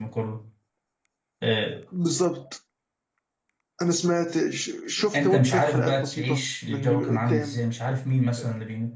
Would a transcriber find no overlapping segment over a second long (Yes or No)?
No